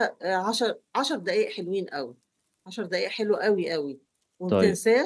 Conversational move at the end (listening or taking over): listening